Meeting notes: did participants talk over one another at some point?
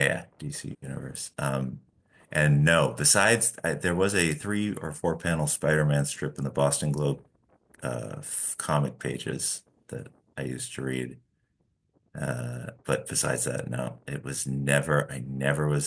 No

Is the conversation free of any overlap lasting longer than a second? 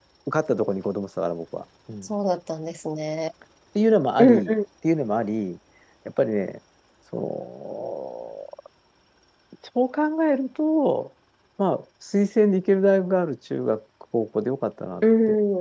Yes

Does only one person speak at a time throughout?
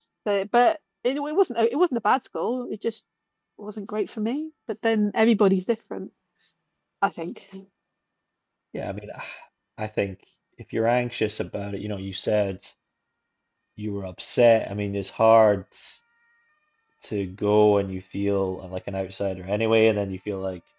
Yes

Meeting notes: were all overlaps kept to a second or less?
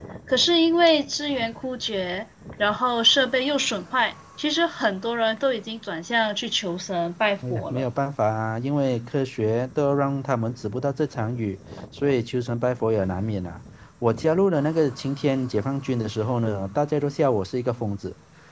Yes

